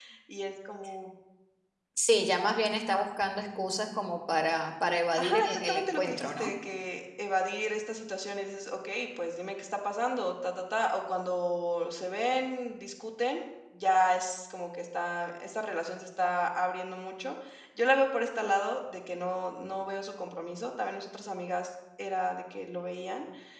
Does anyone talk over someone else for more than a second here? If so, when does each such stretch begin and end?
5.2-6.5

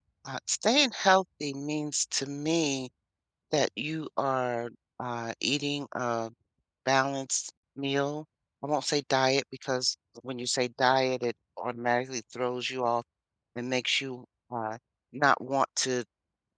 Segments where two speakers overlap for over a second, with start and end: none

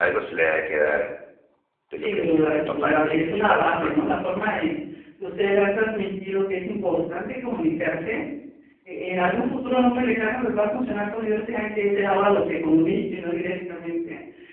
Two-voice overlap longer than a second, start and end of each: 2.0-3.9

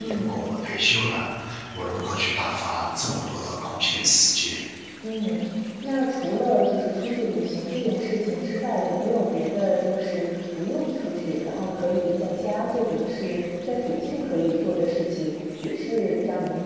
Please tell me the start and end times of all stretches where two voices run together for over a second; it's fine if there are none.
none

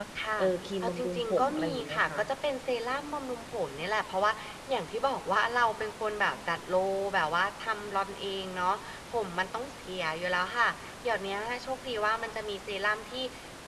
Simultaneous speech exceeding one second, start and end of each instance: 0.8-2.2

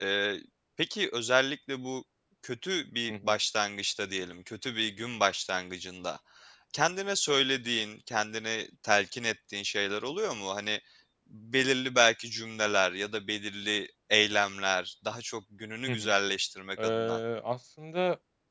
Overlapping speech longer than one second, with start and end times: none

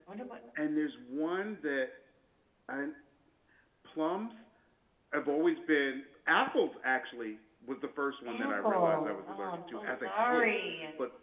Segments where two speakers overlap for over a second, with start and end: 8.3-10.5

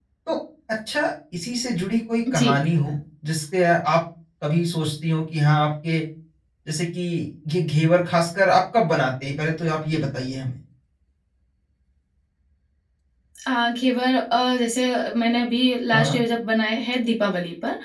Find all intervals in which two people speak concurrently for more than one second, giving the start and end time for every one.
none

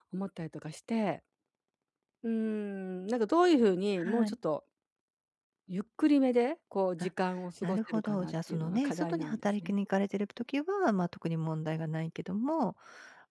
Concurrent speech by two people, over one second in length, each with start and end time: 7.6-9.7

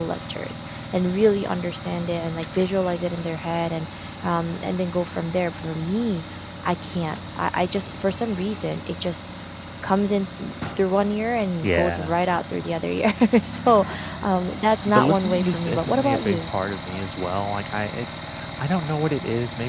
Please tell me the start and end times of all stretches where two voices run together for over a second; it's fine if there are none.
14.9-16.5

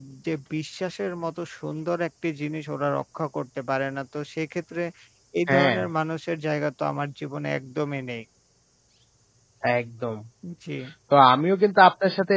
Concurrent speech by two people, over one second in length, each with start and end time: none

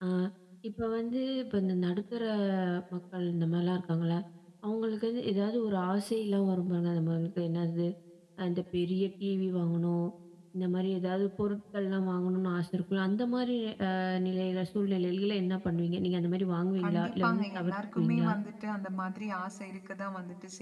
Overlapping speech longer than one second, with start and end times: 16.8-18.3

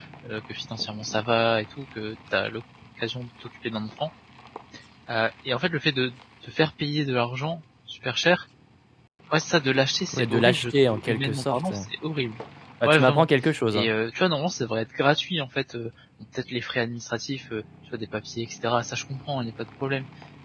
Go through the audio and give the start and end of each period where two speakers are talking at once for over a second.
10.1-11.7

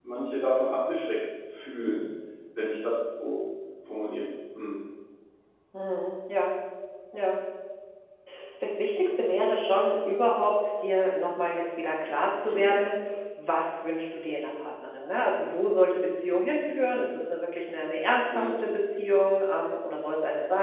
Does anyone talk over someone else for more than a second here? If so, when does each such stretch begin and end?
none

